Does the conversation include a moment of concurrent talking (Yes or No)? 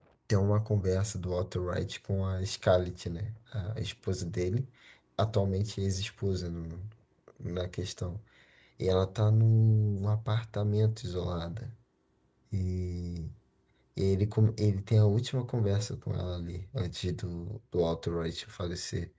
No